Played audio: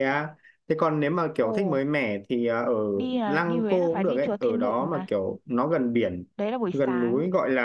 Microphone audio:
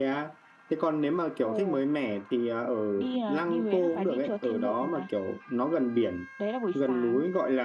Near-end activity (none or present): none